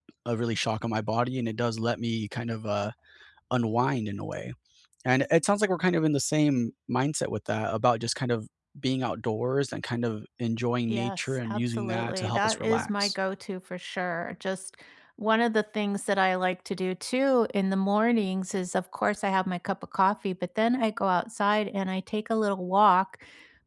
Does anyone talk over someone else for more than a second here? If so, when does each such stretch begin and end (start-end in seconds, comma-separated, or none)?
10.9-13.2